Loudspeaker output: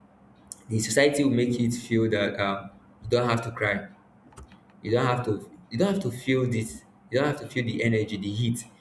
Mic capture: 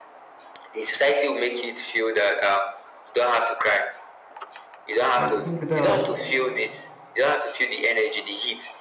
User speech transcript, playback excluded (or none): I think the